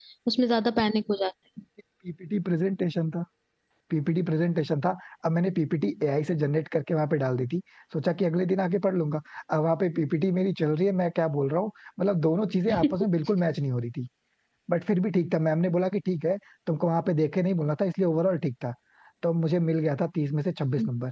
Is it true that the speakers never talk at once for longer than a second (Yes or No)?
Yes